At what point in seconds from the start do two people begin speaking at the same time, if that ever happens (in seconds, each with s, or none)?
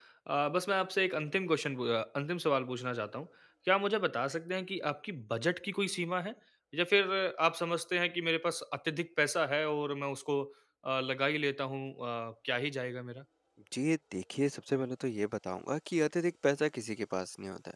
none